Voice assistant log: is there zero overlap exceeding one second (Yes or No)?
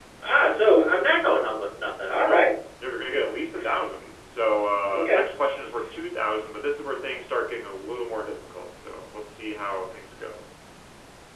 Yes